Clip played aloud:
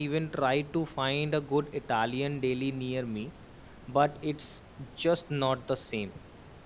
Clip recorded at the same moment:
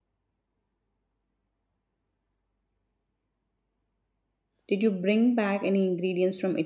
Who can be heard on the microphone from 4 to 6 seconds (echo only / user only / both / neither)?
user only